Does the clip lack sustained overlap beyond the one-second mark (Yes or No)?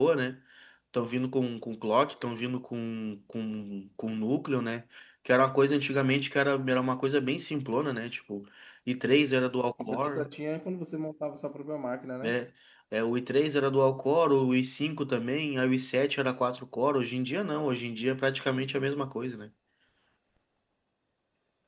Yes